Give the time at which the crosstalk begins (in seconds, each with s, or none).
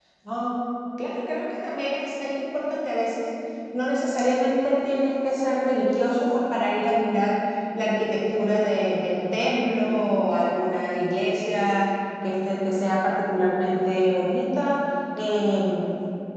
none